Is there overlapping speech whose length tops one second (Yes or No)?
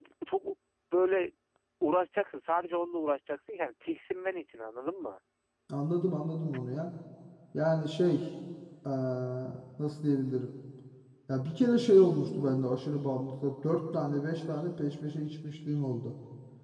No